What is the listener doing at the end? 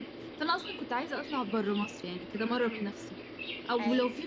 listening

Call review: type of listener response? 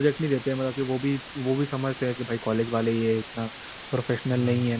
listening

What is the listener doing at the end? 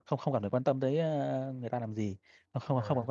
listening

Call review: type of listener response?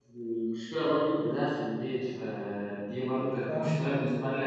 listening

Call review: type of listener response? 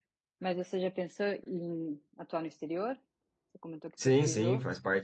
taking over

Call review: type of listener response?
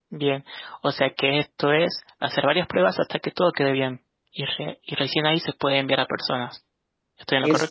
taking over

